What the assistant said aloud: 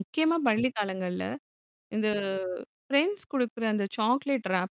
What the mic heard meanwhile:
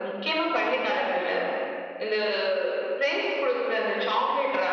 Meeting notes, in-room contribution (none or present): none